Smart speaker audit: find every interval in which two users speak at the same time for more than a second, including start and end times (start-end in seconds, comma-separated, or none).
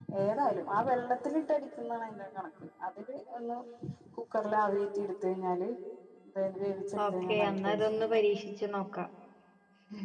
7.0-8.2